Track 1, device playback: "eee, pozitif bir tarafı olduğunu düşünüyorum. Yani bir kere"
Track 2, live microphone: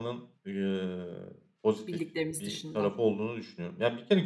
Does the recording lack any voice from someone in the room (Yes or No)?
No